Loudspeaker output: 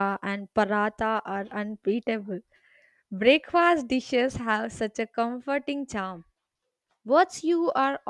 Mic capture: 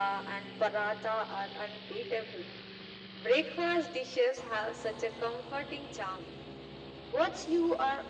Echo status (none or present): present